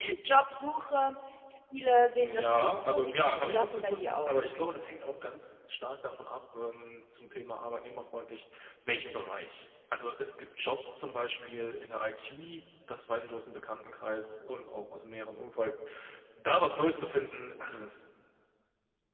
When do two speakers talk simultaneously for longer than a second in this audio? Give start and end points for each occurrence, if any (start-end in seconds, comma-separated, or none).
2.2-4.5